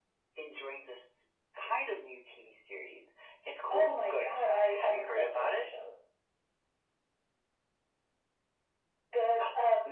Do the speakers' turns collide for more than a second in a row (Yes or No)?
Yes